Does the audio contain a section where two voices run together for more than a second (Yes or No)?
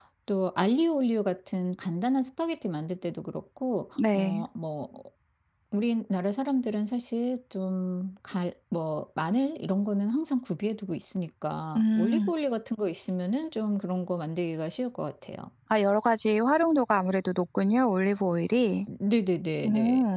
No